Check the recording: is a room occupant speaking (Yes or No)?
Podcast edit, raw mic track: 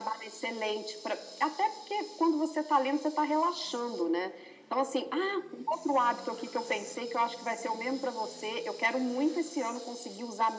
No